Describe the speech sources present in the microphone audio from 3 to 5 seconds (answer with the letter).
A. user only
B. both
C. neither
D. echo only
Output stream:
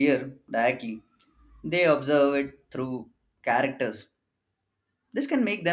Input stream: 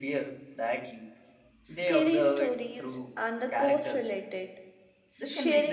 B